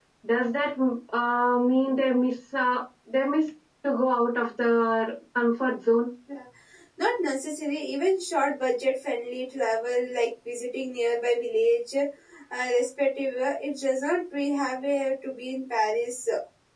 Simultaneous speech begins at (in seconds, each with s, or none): none